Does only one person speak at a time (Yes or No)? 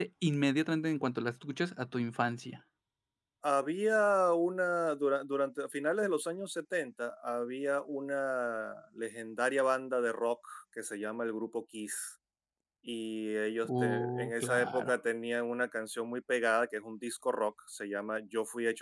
No